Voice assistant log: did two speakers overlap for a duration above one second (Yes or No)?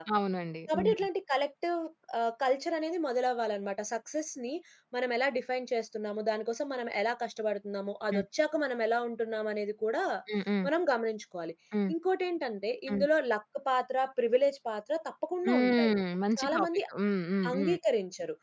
No